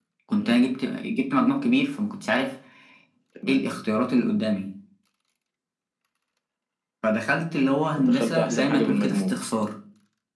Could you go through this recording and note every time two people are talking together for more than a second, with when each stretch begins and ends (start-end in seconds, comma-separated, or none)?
8.0-9.3